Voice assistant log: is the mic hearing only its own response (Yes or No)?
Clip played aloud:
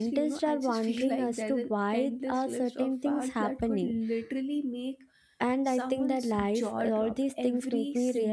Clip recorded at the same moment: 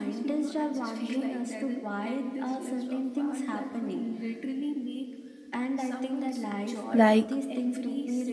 No